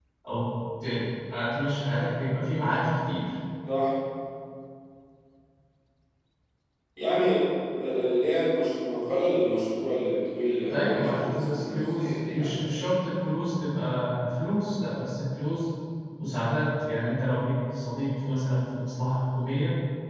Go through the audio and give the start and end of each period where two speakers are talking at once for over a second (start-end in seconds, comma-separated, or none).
10.7-13.0